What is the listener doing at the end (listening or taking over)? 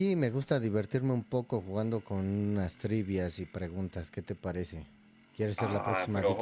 taking over